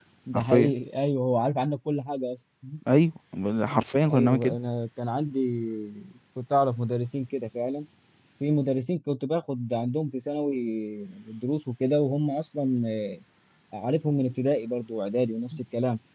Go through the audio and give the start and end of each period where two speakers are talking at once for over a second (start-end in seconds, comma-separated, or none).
none